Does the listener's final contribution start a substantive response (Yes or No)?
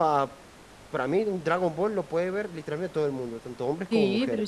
Yes